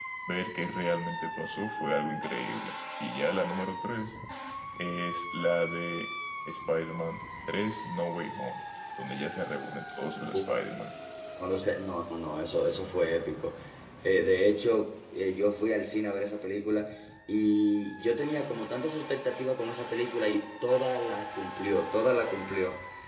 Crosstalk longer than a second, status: none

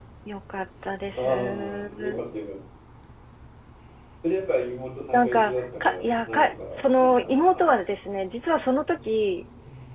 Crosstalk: present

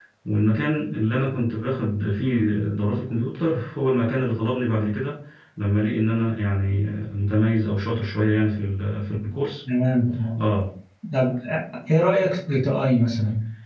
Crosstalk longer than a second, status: none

